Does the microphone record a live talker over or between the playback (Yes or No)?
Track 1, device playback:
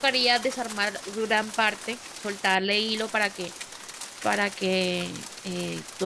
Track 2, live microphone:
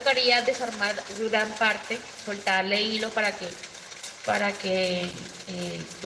No